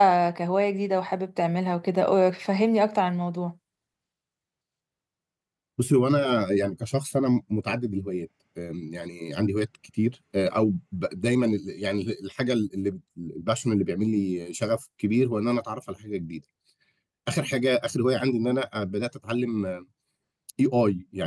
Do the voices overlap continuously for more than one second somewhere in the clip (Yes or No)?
No